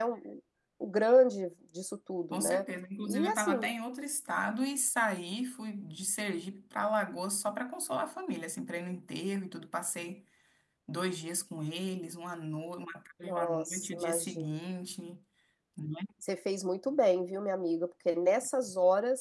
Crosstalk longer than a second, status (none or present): present